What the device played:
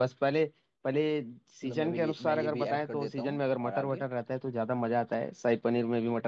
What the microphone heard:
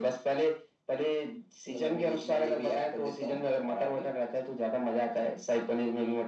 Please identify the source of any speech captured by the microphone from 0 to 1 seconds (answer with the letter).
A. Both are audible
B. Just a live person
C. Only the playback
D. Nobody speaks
C